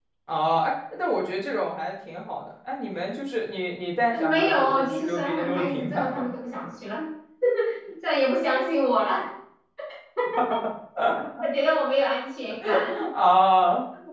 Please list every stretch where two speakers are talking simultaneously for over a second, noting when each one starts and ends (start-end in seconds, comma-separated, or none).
4.1-6.3